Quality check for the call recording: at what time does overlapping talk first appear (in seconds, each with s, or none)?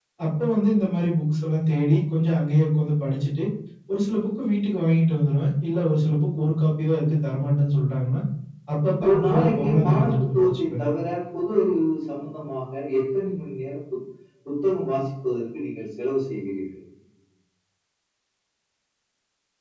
9.0 s